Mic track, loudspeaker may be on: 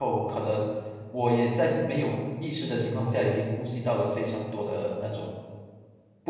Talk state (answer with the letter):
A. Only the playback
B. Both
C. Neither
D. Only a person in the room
D